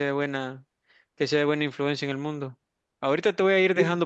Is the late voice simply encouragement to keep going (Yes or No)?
Yes